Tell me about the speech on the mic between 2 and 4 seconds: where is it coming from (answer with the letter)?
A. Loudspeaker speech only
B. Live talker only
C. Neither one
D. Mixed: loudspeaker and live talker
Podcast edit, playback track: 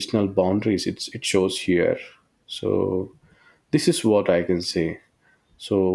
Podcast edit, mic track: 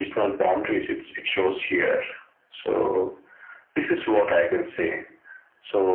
A